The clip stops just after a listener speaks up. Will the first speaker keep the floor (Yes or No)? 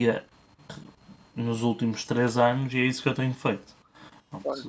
No